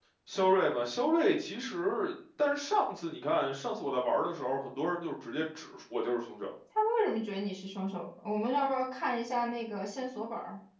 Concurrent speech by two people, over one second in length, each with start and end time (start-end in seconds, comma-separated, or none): none